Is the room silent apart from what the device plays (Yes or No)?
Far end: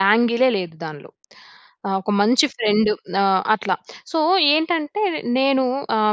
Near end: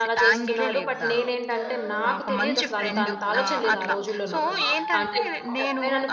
No